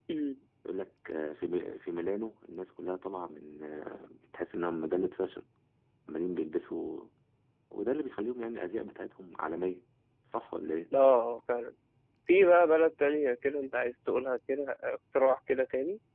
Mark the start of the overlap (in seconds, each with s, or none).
none